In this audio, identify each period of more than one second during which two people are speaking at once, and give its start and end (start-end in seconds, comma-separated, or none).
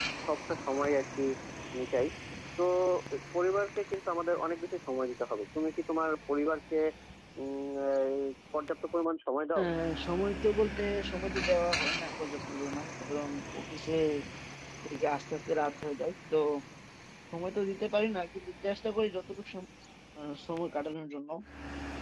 none